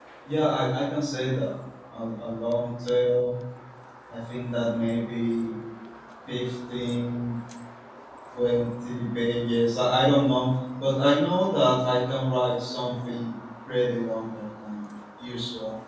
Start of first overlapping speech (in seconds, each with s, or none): none